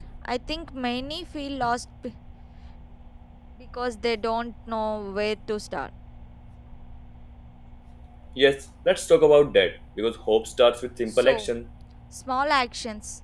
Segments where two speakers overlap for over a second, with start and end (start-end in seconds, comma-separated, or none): none